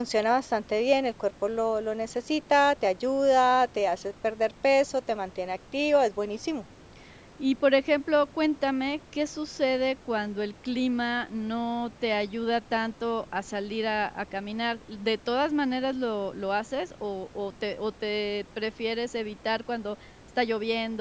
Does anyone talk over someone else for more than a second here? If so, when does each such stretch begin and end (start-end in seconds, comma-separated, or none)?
none